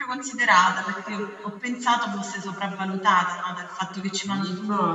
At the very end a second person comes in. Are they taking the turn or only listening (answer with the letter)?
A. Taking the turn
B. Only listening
A